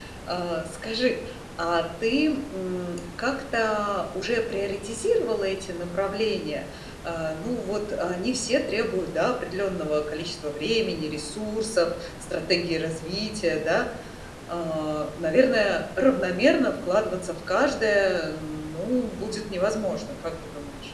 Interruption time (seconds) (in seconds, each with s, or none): none